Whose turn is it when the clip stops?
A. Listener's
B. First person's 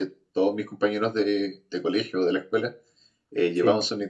B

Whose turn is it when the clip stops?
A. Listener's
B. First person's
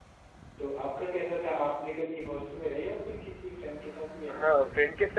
A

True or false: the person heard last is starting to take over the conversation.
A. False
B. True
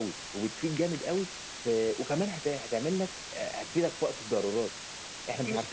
B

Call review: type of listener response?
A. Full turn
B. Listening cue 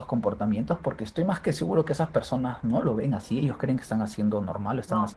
B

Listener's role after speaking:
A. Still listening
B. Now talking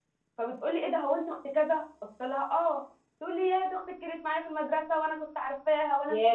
A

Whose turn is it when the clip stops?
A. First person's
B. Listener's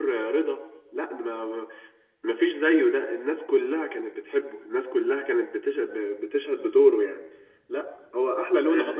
B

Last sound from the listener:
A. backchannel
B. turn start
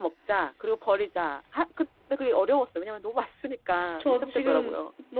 B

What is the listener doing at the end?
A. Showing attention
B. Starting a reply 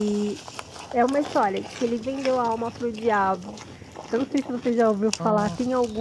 A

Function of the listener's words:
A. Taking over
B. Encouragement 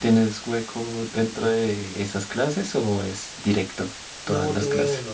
A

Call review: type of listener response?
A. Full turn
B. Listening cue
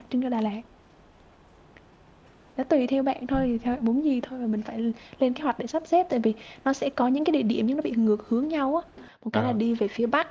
B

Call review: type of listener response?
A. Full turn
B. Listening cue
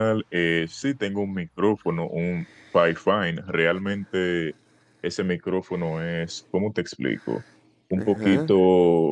B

